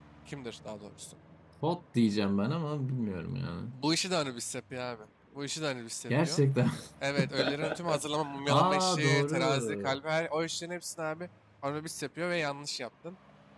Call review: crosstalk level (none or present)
present